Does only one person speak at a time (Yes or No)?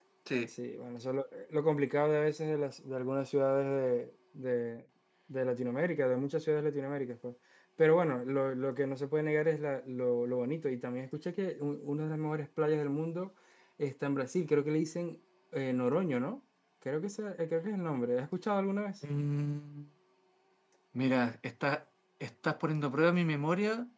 Yes